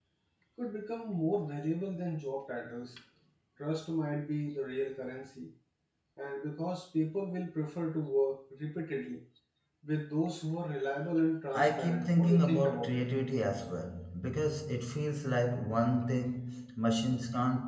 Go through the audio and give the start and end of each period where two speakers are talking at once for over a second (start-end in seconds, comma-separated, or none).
11.5-13.0